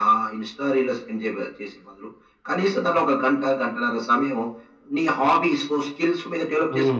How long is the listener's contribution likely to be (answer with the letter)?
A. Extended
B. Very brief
A